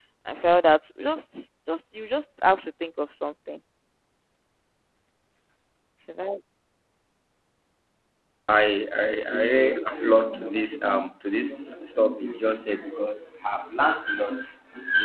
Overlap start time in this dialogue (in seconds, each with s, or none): none